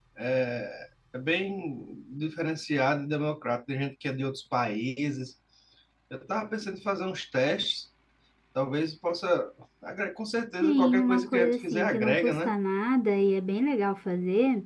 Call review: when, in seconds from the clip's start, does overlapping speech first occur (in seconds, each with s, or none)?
10.6 s